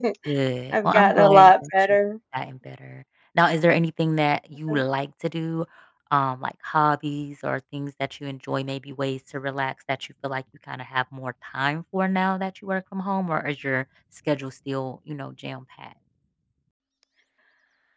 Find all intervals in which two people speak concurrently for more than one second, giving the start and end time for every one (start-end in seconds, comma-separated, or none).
0.7-2.0